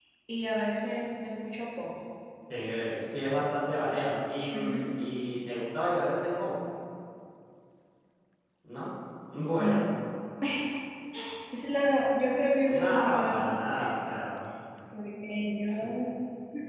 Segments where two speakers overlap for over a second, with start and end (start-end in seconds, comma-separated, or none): 12.6-14.0